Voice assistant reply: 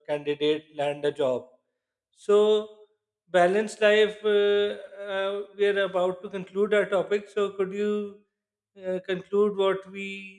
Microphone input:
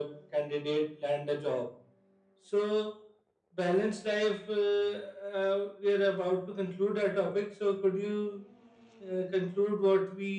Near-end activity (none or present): none